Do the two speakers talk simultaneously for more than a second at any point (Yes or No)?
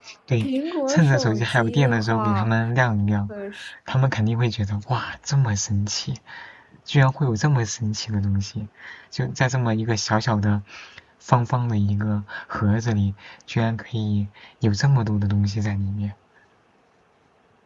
Yes